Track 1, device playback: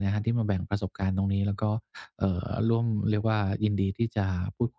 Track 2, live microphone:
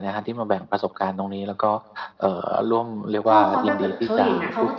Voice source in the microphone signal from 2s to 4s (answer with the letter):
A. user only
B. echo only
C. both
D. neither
C